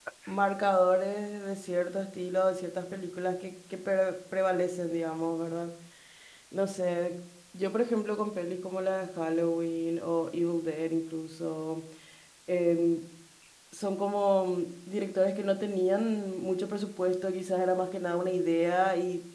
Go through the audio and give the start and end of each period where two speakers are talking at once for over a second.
none

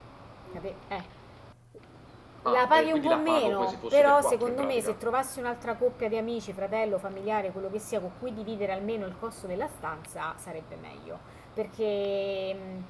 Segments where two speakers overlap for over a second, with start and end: 2.5-5.0

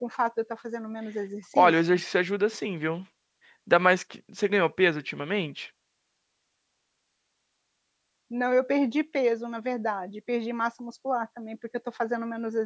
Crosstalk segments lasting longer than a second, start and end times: none

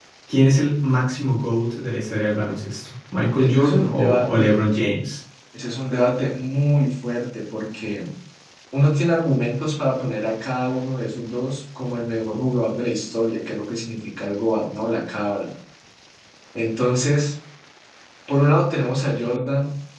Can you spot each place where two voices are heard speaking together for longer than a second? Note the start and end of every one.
3.4-4.6

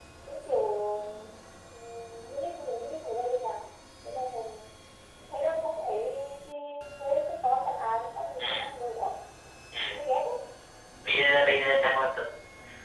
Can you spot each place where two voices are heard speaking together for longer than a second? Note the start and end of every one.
none

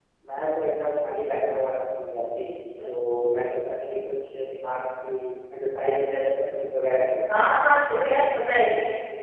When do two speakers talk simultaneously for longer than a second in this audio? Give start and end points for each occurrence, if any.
none

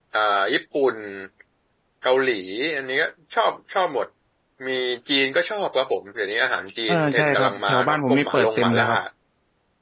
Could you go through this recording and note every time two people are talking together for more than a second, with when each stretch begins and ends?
6.9-8.9

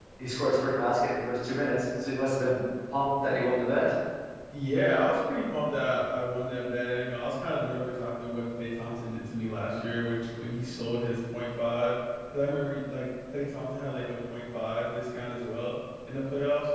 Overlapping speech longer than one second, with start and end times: none

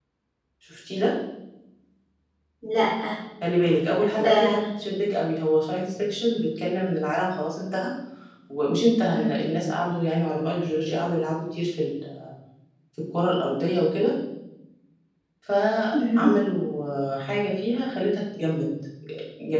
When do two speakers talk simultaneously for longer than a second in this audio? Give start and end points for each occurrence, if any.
none

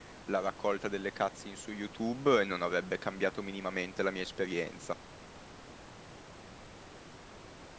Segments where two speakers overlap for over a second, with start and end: none

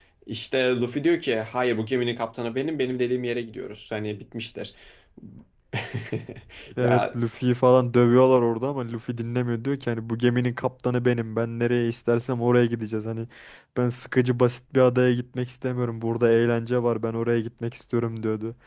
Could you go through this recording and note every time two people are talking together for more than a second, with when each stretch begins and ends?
none

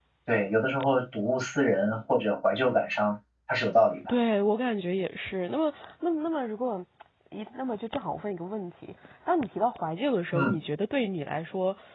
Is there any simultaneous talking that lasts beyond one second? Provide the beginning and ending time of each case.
none

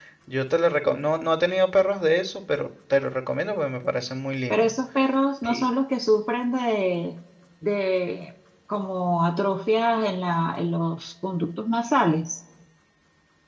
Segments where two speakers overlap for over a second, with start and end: none

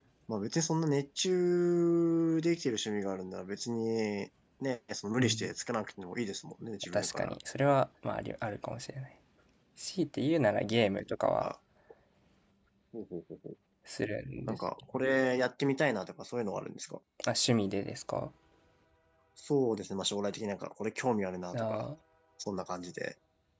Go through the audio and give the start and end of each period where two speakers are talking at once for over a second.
none

